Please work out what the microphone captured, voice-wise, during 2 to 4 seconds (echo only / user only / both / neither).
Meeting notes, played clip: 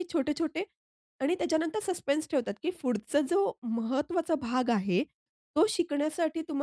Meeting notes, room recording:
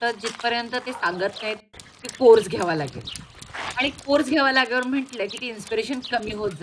user only